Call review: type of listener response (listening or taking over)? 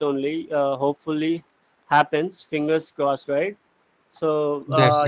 listening